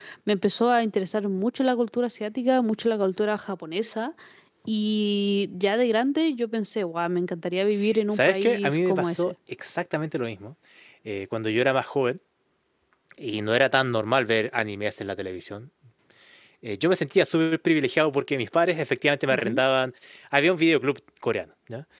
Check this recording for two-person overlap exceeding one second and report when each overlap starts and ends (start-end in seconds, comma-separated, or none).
8.1-9.3